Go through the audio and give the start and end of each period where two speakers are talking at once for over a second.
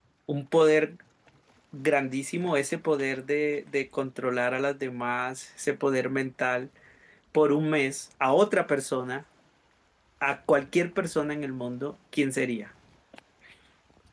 none

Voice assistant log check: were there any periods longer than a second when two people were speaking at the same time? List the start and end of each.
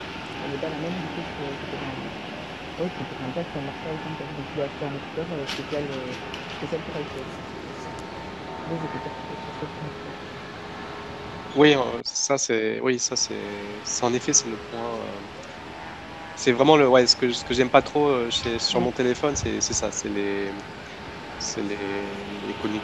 none

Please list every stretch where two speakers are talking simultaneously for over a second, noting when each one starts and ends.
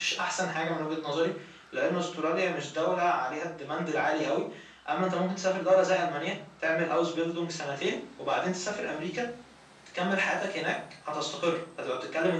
none

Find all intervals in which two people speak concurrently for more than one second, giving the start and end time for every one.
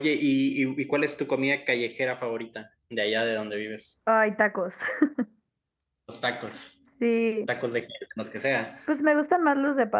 none

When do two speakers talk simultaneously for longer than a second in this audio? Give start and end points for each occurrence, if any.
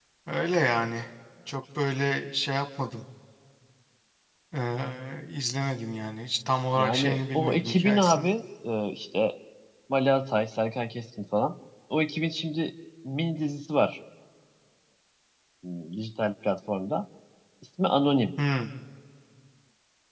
6.8-8.3

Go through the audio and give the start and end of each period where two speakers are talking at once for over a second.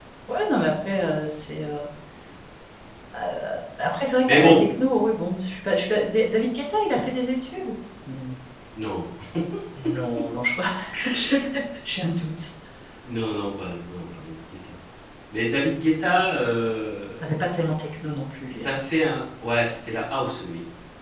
none

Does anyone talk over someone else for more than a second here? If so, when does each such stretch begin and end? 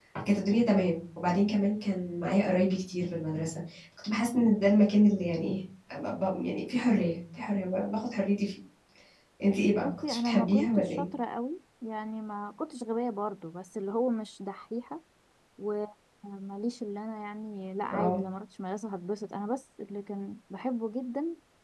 9.8-11.1

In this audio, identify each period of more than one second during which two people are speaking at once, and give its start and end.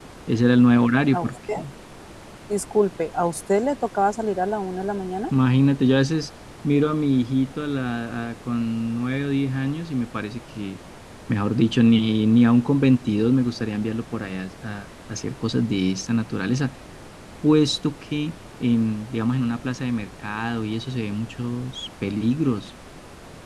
none

